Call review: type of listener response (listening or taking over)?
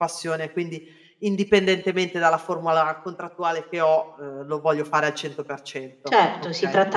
taking over